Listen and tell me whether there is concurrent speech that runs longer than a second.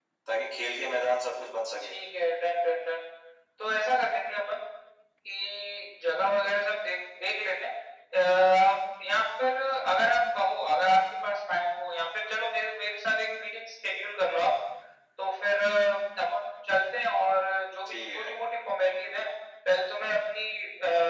No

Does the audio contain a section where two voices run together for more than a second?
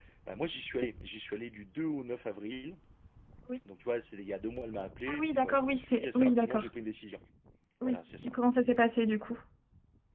Yes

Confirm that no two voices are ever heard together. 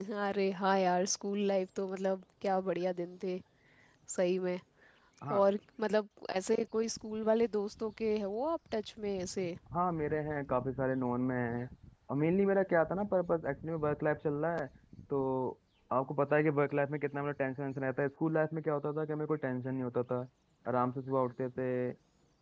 Yes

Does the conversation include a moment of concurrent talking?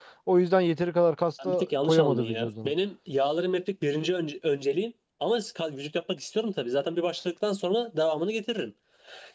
Yes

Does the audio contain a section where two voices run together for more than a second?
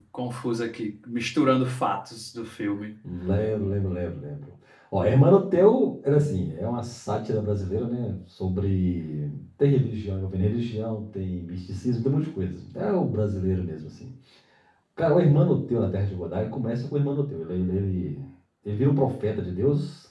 No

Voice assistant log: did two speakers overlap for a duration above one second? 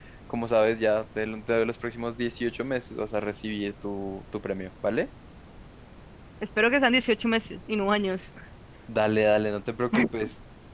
No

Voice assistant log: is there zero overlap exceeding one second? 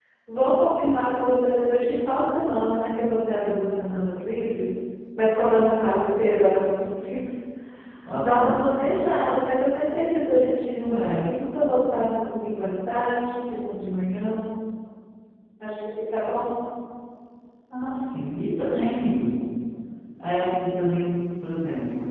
Yes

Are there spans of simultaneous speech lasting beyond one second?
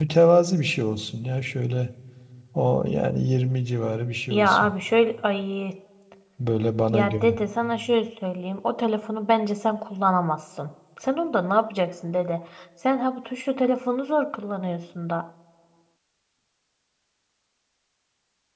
No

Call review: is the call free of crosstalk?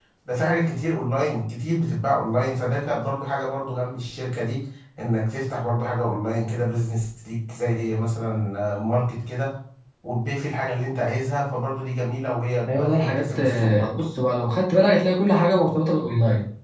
No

